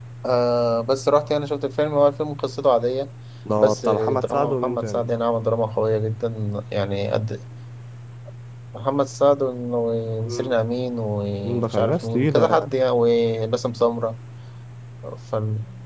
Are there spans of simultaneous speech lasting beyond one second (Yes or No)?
Yes